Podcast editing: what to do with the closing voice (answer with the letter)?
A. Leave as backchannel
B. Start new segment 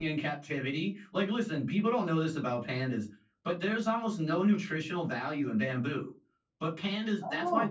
A